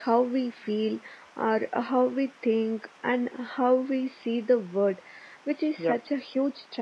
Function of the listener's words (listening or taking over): listening